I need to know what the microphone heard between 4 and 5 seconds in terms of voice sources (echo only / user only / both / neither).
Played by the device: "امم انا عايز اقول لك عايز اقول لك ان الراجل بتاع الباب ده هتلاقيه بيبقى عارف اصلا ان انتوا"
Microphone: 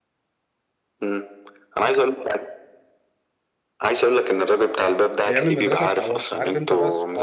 echo only